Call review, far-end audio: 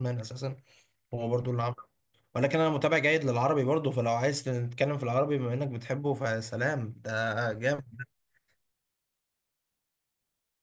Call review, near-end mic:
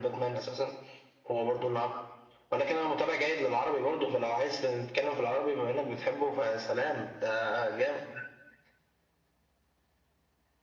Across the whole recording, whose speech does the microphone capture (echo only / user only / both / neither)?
echo only